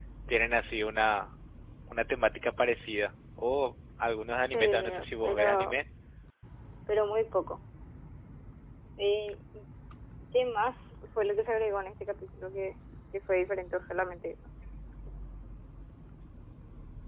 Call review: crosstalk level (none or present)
present